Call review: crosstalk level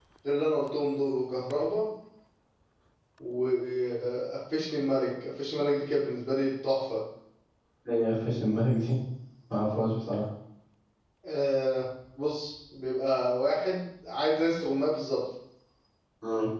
none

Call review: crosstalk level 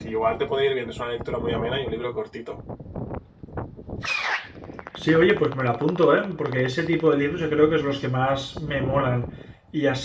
none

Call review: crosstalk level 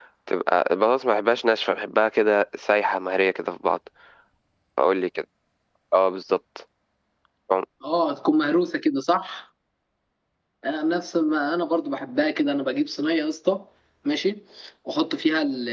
none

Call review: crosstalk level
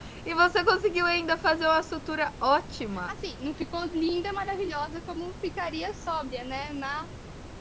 none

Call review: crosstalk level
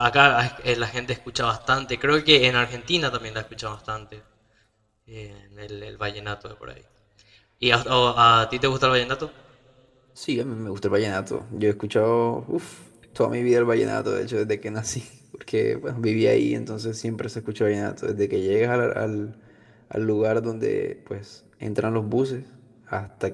none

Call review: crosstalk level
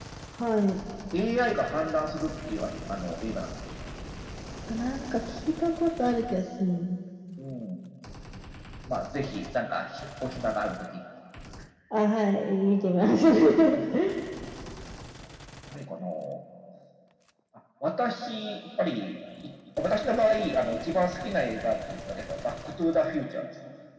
none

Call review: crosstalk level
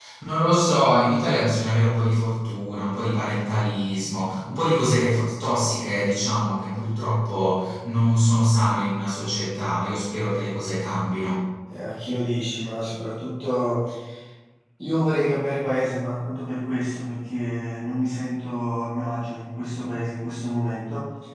none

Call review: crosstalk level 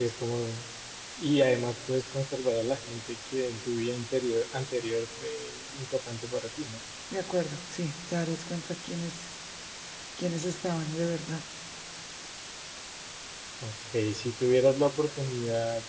none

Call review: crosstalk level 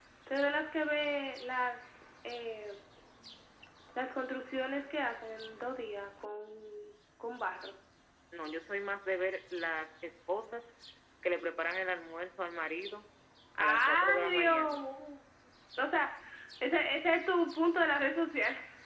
present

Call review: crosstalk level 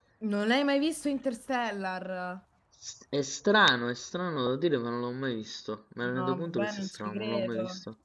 present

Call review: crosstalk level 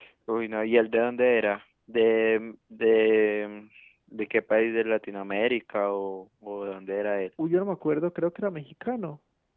none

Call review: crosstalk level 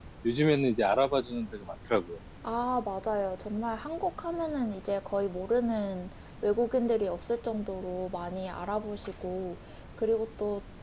none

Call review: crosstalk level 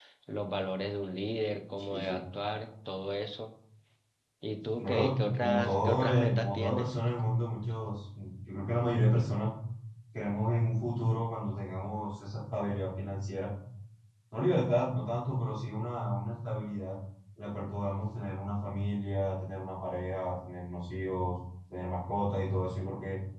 present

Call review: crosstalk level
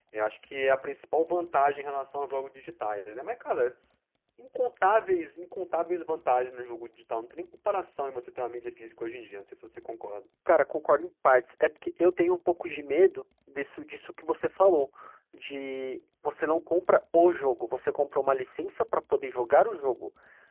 none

